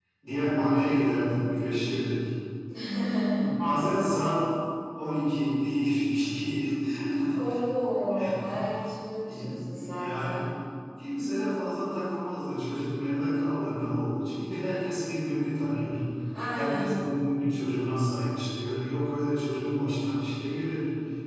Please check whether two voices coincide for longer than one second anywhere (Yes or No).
Yes